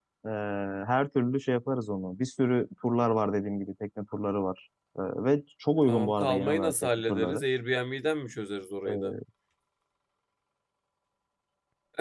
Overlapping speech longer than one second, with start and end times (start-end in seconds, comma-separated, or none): 5.9-7.4